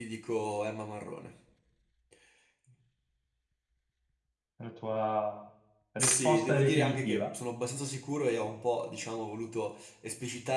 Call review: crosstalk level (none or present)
present